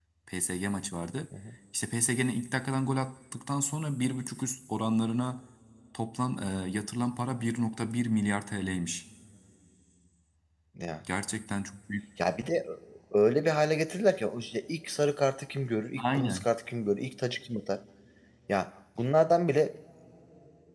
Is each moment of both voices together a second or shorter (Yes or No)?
Yes